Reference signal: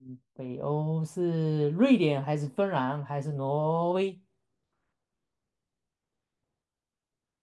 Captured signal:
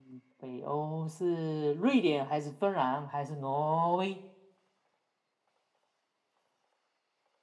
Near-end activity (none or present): none